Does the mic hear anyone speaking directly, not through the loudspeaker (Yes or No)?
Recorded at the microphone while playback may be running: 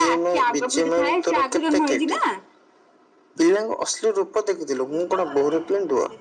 Yes